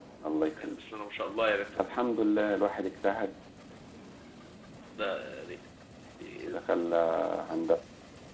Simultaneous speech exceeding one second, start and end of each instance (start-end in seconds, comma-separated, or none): none